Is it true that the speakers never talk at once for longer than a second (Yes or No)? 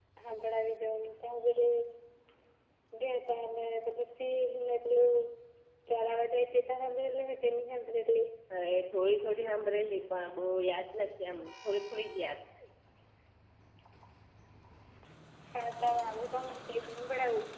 Yes